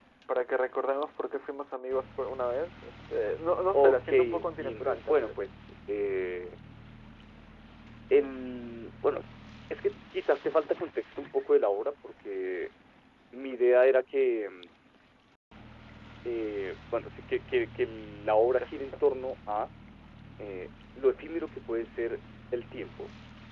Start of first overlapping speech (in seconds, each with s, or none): 3.7 s